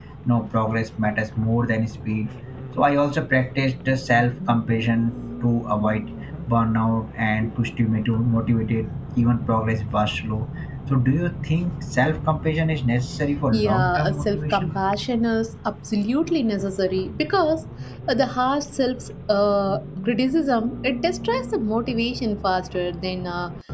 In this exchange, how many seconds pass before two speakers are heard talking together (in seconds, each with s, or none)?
13.5 s